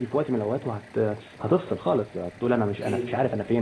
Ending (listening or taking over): listening